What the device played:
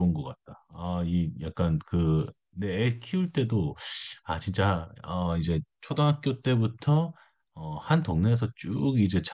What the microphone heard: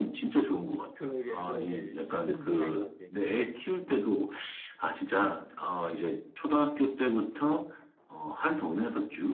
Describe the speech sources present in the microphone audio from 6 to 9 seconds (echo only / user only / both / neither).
echo only